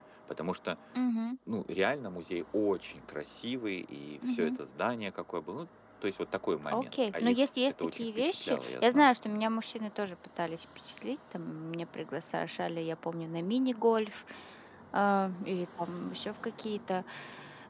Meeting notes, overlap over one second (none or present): present